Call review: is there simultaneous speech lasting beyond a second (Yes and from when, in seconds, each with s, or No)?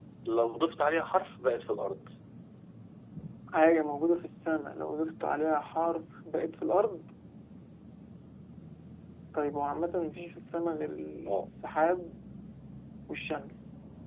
No